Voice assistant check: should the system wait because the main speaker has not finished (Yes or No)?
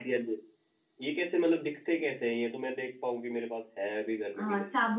No